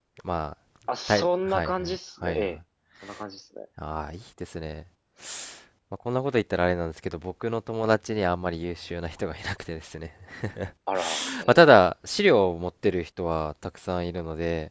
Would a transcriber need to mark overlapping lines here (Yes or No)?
Yes